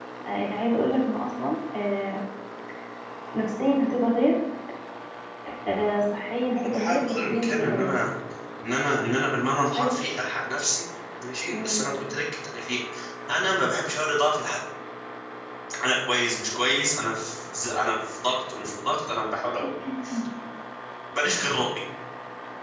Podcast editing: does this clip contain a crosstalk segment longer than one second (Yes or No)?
Yes